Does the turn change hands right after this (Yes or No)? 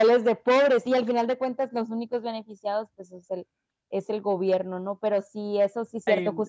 No